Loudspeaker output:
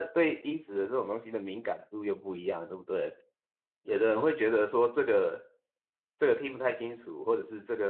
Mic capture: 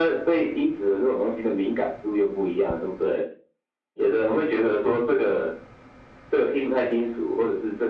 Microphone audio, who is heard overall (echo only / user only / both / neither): echo only